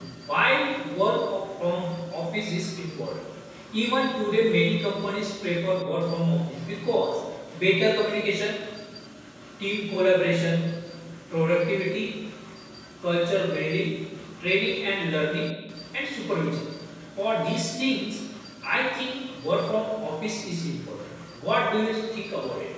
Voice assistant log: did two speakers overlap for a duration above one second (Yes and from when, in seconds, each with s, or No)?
No